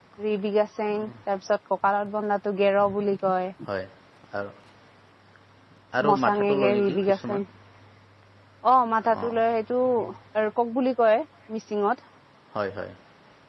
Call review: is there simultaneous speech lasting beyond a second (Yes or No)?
Yes